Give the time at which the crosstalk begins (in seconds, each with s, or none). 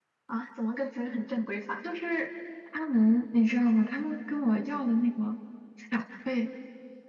none